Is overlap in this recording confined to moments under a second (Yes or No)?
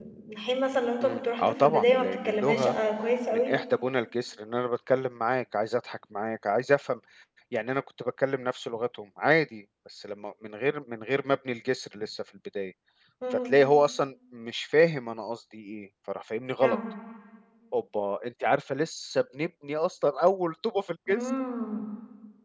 No